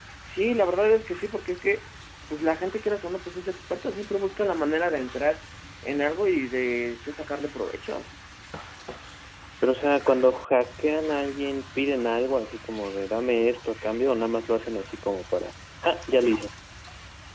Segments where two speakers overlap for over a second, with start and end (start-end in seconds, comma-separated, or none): none